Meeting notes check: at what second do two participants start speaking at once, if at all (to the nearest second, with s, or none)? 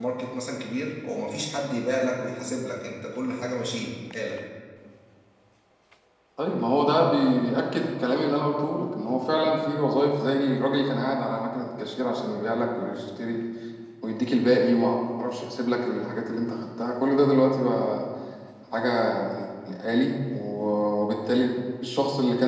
none